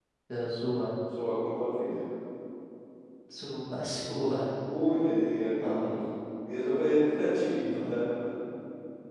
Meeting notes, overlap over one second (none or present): none